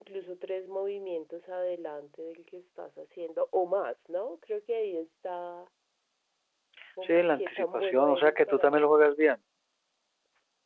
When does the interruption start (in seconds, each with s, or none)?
7.0 s